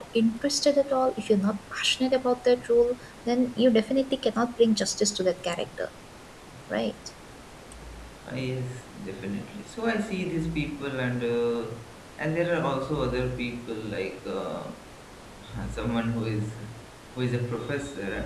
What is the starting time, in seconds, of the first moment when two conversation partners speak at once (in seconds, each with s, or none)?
none